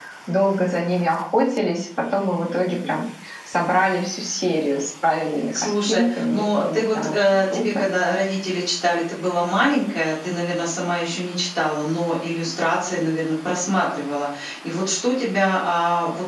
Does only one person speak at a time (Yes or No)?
No